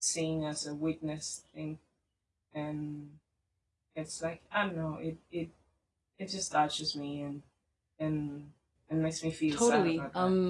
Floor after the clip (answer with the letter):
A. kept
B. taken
B